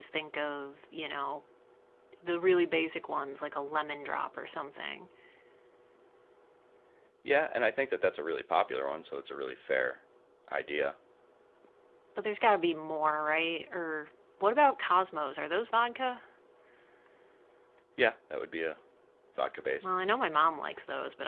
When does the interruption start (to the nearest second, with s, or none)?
none